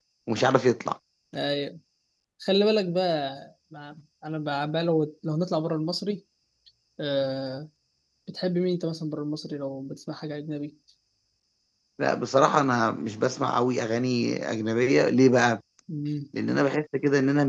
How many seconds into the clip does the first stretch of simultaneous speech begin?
none

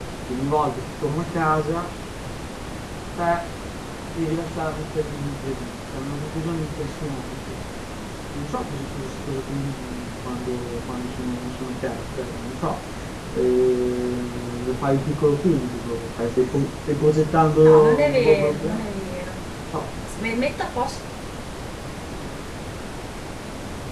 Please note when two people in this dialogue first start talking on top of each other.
17.5 s

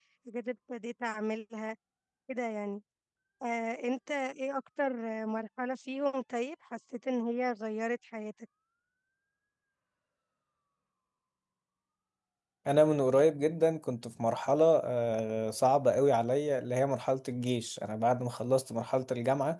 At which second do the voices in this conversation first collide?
none

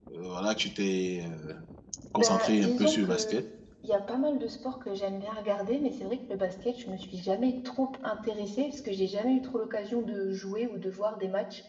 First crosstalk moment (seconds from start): 2.2 s

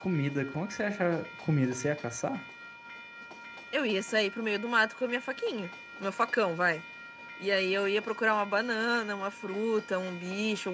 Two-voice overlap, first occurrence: none

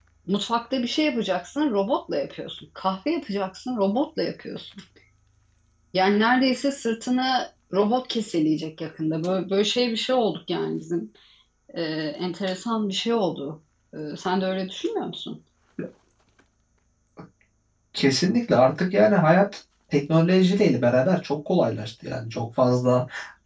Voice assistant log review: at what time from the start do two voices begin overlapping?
none

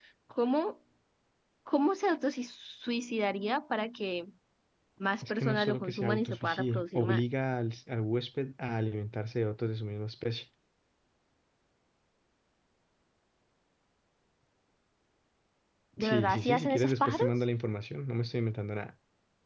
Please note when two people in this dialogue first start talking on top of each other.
5.3 s

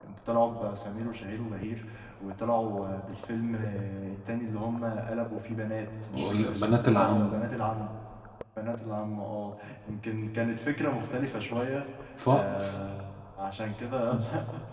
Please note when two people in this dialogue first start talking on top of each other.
6.1 s

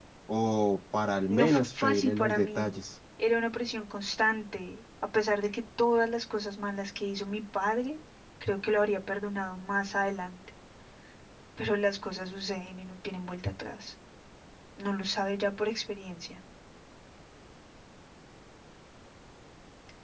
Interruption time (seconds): 1.3 s

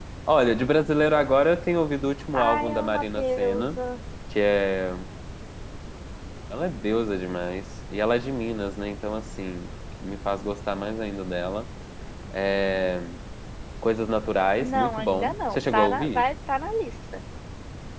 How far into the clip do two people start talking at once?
2.3 s

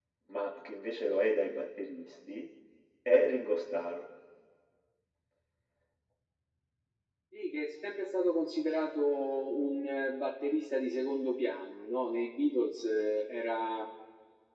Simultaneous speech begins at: none

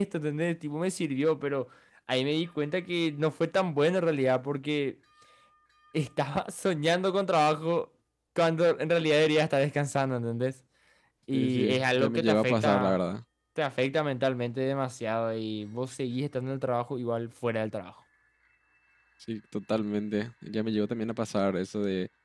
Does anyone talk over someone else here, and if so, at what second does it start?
11.3 s

